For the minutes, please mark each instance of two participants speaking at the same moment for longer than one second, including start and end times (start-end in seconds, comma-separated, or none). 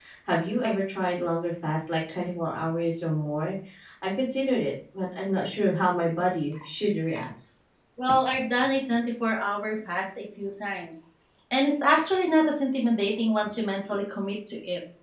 none